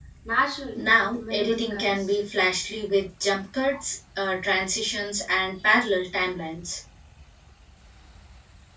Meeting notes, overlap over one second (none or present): present